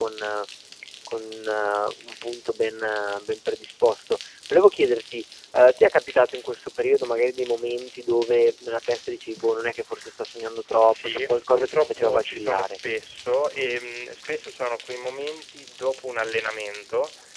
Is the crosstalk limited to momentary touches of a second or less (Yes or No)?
No